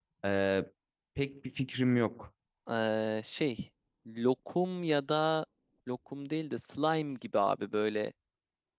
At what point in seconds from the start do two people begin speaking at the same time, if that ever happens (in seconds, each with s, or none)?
none